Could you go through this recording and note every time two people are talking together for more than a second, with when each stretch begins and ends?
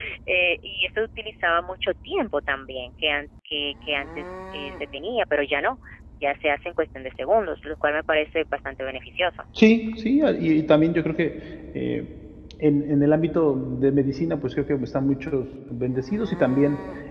none

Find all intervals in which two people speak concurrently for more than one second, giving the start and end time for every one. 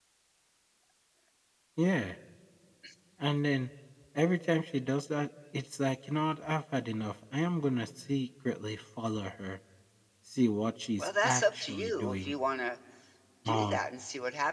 11.0-12.3

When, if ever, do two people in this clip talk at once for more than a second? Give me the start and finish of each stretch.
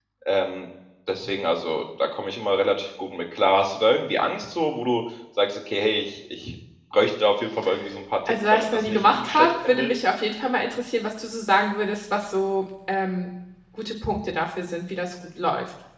8.3-9.9

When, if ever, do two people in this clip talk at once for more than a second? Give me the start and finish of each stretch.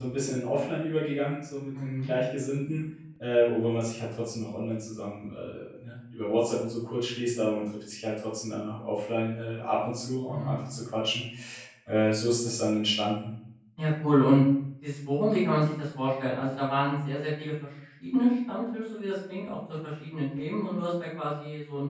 none

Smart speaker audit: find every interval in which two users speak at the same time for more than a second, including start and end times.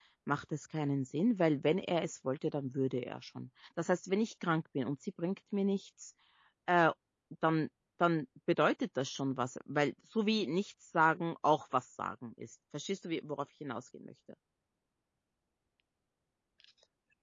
none

